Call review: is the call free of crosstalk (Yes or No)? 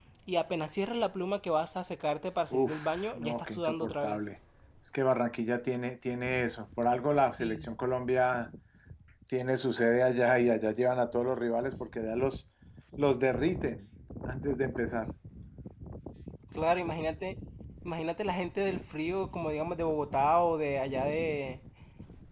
No